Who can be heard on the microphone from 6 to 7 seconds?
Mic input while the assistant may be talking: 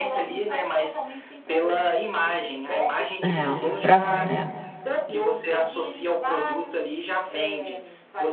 echo only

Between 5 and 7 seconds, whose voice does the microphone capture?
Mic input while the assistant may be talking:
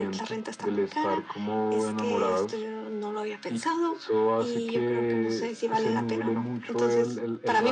echo only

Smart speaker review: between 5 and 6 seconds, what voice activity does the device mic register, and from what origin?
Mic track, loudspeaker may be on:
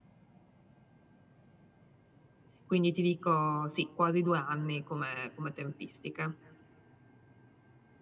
user only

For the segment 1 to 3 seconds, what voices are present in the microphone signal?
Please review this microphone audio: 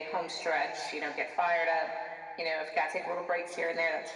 echo only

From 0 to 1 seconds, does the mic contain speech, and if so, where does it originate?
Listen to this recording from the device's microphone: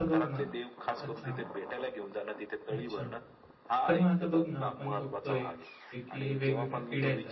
both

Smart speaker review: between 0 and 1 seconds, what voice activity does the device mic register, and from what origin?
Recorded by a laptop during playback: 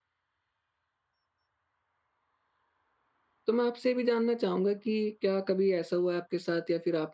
neither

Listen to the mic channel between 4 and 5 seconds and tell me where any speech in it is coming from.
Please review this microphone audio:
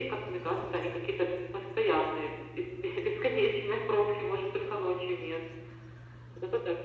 echo only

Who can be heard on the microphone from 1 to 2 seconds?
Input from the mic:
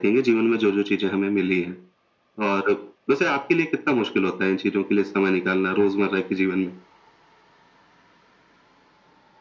echo only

